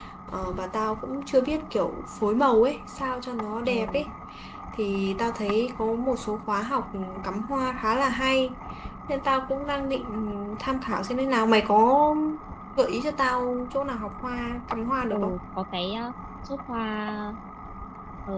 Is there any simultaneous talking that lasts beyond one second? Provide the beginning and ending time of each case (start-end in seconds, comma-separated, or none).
none